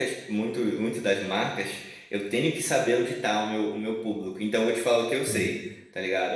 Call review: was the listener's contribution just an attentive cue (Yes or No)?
Yes